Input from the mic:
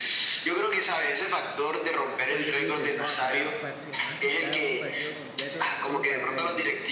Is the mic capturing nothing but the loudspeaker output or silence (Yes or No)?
No